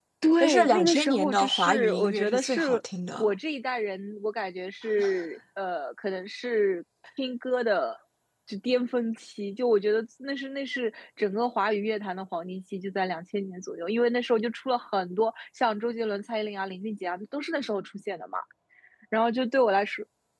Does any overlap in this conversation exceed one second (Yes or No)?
Yes